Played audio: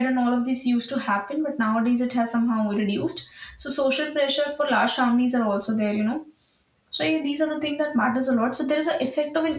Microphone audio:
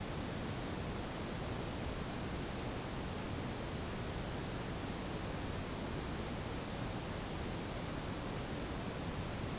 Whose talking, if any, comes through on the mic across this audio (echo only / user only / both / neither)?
neither